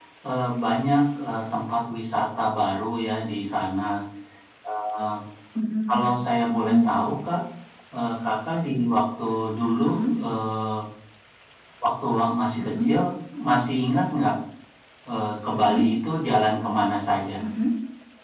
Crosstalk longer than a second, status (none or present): none